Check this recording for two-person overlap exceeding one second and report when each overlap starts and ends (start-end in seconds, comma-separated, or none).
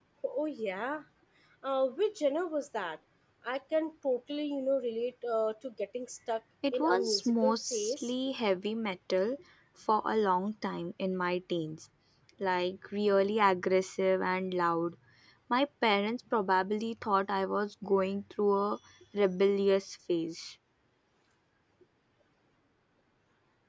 6.7-8.1